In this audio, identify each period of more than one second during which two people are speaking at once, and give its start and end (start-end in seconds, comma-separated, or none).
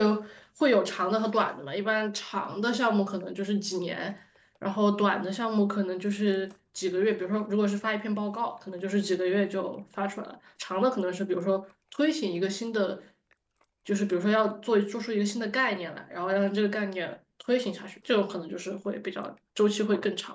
none